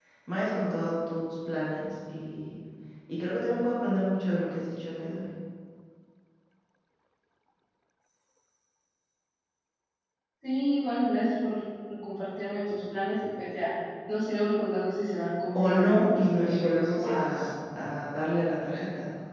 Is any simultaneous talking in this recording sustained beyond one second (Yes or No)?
Yes